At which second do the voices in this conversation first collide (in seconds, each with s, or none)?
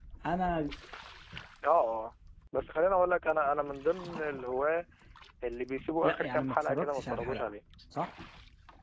6.0 s